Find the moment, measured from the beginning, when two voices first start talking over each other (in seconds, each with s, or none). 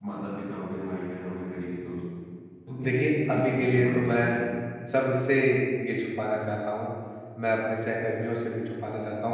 2.8 s